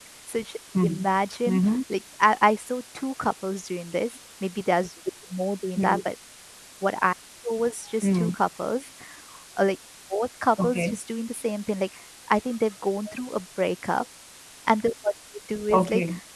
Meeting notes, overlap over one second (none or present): none